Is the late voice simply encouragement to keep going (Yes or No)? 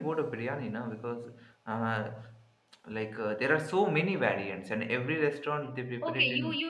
No